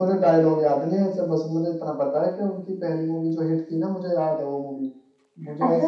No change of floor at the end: No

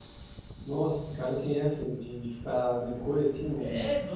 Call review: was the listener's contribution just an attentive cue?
No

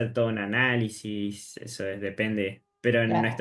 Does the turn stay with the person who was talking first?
Yes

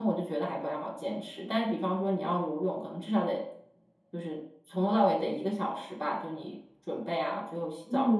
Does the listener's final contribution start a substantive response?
Yes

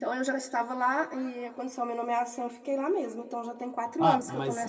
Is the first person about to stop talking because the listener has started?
Yes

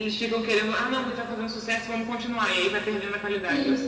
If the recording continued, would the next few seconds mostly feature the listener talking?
Yes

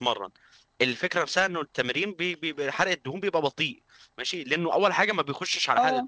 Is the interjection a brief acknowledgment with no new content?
Yes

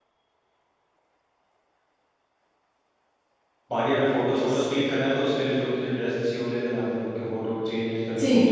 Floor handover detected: Yes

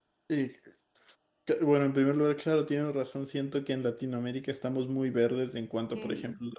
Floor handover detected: No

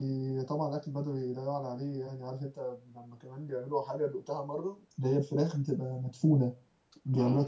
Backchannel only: No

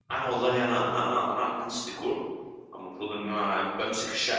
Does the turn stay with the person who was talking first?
Yes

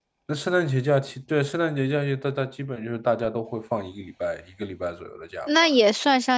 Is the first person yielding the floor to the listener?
Yes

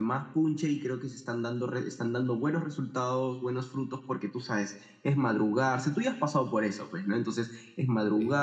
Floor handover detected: No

